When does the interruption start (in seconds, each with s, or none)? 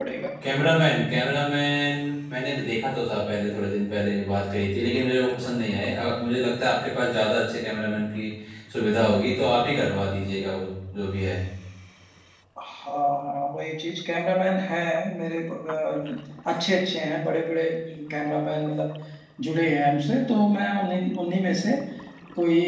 none